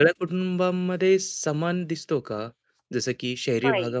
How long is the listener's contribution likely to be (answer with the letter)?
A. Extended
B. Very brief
B